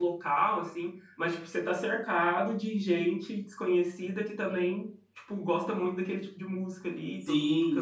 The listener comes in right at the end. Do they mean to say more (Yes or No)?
Yes